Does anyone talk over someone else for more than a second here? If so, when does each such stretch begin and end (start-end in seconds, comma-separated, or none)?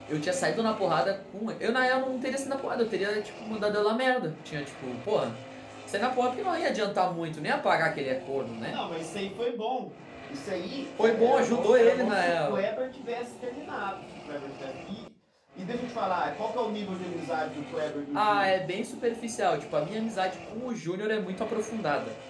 11.0-12.6